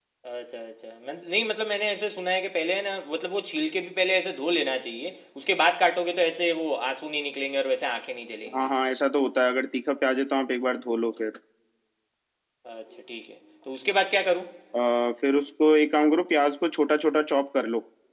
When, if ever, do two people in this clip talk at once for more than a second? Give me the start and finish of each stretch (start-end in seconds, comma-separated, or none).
none